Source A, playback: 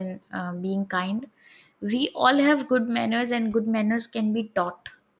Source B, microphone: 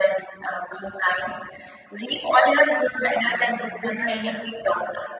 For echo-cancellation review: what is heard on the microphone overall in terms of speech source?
both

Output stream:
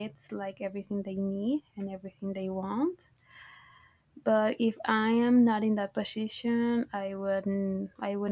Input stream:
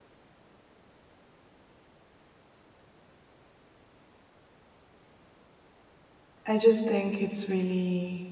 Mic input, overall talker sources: user only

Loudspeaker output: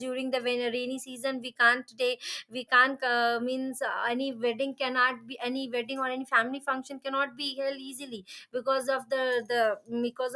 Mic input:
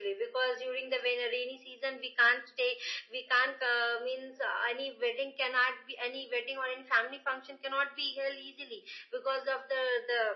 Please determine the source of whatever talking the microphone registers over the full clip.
echo only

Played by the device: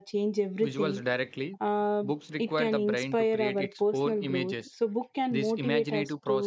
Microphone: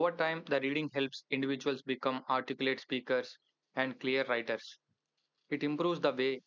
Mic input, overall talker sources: user only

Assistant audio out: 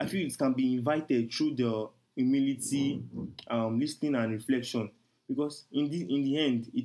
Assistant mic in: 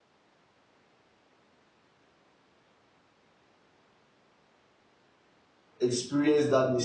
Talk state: user only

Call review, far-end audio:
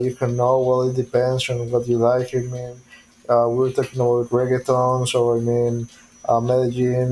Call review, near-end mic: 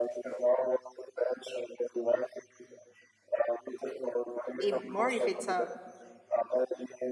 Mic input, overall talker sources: both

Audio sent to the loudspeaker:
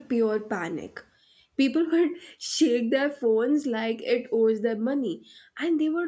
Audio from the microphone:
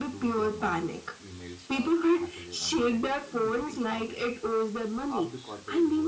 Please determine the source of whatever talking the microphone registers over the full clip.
both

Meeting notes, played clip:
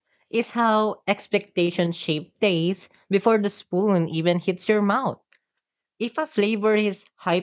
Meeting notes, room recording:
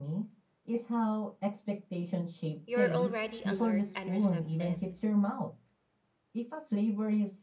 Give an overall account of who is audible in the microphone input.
both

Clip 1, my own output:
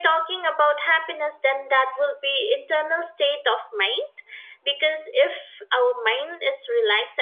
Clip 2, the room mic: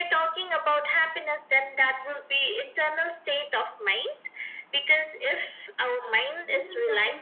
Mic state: both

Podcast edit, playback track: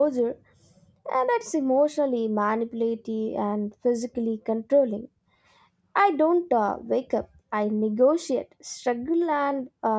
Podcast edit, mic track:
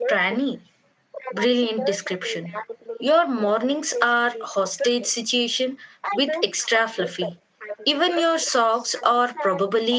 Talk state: both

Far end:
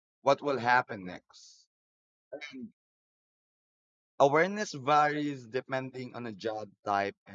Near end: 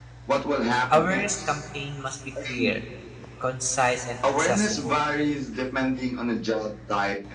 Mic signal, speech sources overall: both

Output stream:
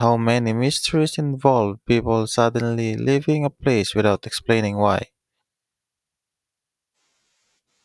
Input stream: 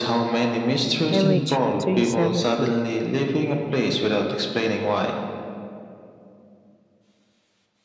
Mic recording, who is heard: both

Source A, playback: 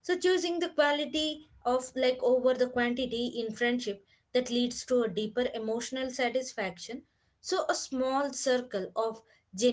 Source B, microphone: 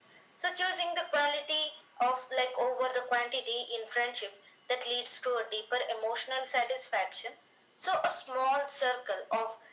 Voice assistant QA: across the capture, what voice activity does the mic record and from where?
echo only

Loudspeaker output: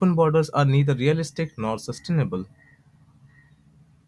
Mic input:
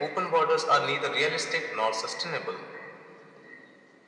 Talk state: echo only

